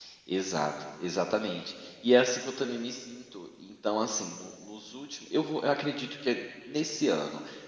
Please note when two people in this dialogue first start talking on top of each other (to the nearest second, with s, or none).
none